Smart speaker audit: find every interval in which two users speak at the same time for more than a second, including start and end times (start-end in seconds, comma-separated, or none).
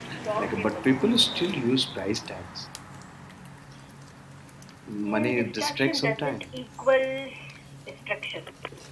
5.1-6.5